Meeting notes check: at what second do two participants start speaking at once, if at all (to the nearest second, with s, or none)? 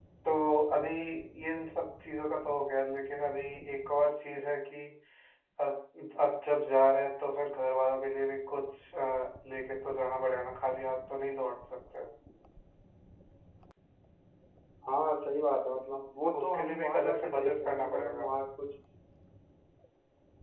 16 s